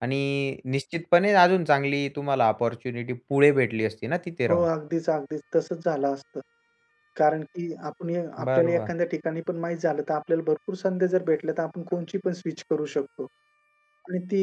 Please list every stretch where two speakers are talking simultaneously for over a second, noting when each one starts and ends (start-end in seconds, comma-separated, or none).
none